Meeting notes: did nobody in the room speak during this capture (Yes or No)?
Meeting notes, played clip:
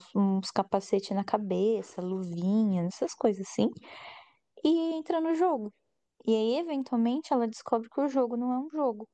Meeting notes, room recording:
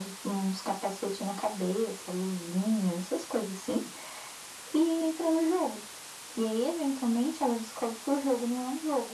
Yes